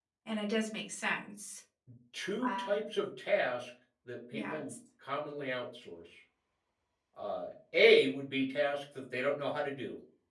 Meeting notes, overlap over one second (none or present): none